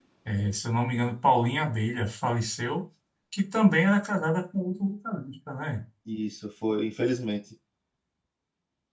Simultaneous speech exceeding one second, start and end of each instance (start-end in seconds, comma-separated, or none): none